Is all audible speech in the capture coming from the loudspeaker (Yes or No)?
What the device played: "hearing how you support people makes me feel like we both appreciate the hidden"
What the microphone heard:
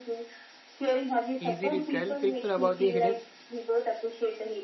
No